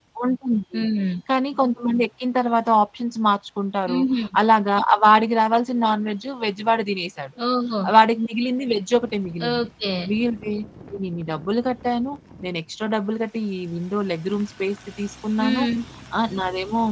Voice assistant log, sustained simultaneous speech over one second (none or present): none